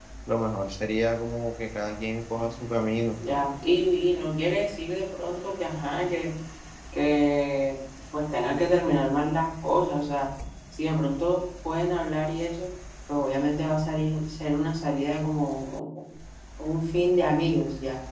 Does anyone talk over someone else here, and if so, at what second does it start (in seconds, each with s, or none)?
none